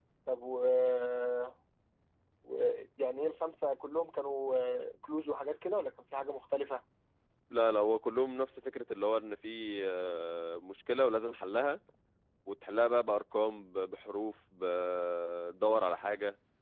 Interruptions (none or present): none